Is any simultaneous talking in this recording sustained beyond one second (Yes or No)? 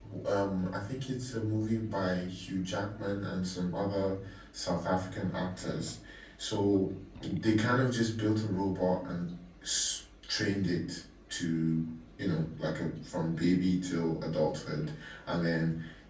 No